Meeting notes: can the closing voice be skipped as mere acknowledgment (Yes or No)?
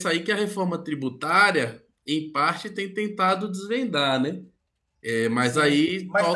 No